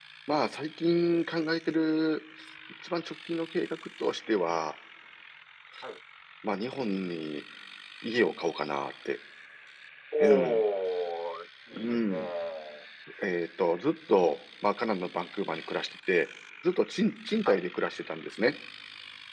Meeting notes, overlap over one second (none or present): none